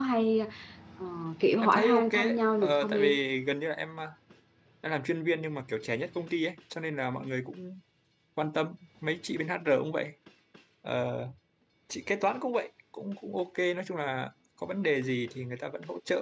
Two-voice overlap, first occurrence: 2 s

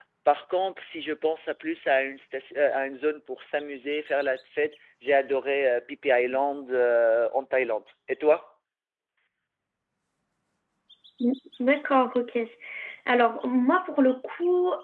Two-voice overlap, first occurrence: none

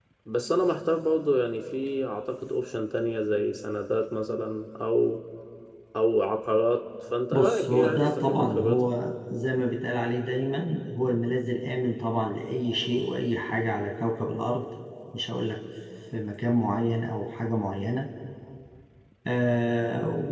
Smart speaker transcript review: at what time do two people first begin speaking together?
7 s

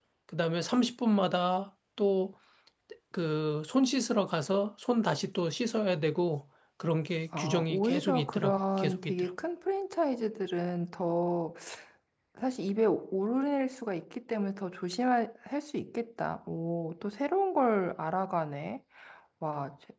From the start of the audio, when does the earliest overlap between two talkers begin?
7 s

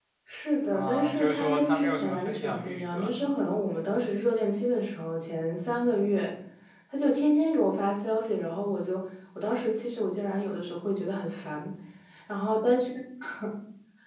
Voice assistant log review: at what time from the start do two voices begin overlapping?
1 s

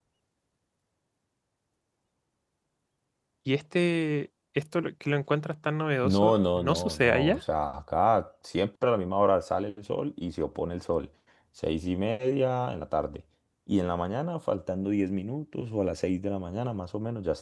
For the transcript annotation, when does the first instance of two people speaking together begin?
6 s

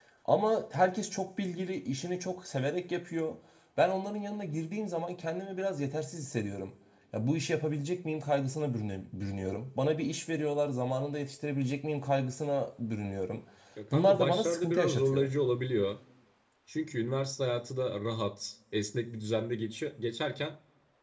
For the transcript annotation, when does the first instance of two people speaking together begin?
14 s

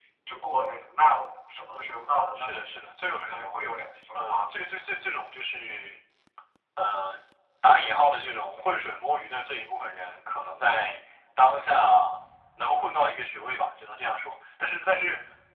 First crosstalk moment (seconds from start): 2 s

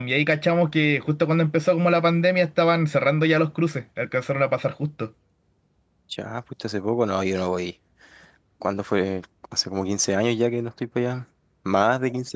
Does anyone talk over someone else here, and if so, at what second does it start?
none

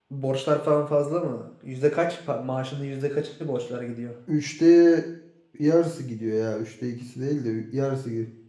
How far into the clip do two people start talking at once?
none

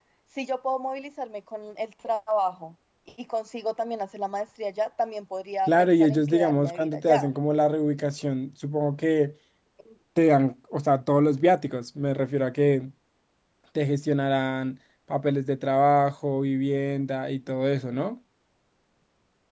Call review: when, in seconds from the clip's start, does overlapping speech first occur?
6 s

